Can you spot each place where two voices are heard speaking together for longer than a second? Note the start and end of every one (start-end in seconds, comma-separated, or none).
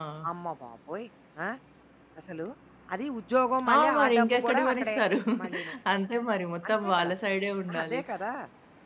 3.7-5.0